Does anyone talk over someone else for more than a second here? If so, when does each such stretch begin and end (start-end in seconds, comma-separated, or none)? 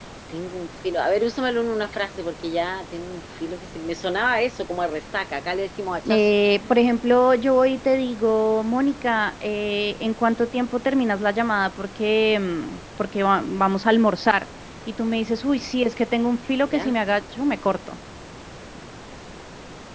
none